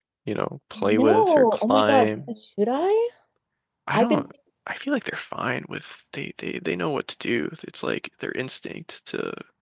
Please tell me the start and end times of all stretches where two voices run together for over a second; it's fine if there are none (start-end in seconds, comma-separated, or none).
1.0-2.3